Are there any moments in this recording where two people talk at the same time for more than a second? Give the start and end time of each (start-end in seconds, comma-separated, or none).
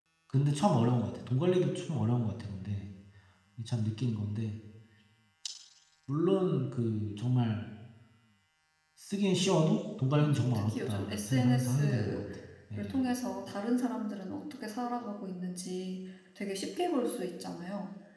10.2-12.2